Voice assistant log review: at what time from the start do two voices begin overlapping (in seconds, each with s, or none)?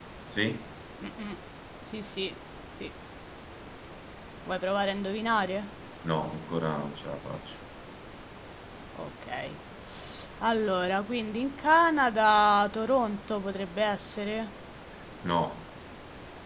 none